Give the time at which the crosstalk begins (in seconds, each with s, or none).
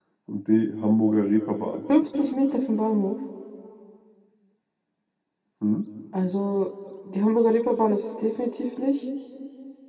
none